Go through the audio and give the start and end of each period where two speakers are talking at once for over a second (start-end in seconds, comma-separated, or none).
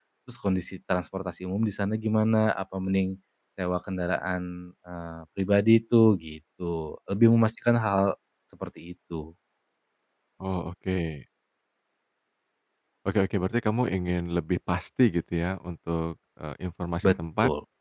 none